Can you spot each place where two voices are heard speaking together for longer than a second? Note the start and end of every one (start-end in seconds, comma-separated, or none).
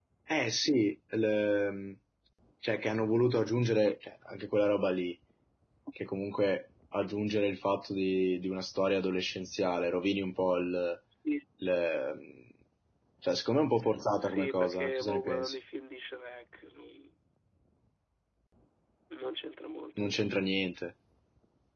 14.2-15.6